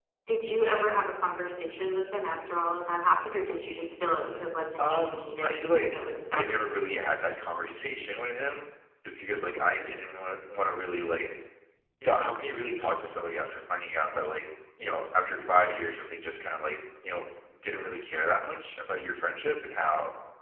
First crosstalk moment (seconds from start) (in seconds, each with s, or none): 4.8 s